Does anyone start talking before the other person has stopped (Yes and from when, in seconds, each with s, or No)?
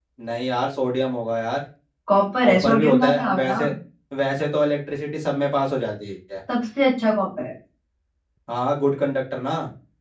Yes, from 2.4 s